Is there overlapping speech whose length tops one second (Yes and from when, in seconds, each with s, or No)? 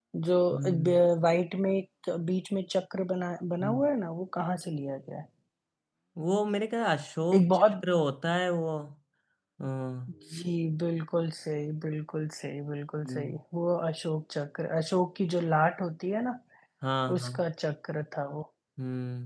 No